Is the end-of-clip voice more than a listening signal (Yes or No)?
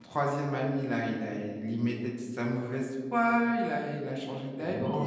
Yes